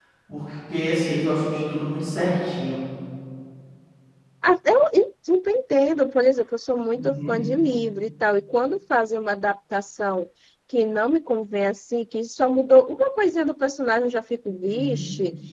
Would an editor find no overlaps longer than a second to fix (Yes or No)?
Yes